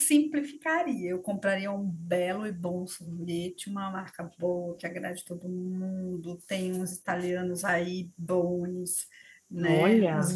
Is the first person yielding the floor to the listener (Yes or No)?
No